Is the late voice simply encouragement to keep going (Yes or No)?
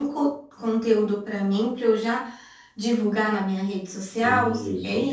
No